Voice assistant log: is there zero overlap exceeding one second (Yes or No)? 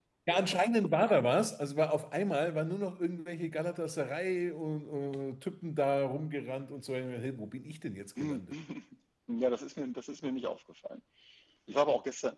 Yes